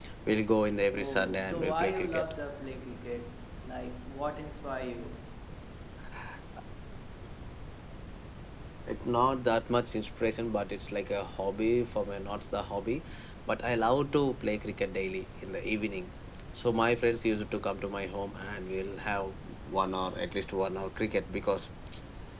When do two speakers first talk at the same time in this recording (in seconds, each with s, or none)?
0.9 s